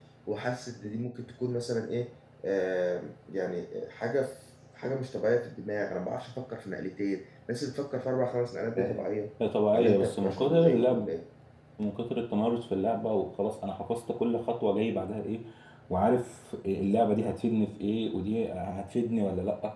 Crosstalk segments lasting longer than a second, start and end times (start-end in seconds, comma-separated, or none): 9.7-11.1